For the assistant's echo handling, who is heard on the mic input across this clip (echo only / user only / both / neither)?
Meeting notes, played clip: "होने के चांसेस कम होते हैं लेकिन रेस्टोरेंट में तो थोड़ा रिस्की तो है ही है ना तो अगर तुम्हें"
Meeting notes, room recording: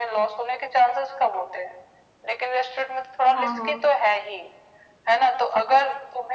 both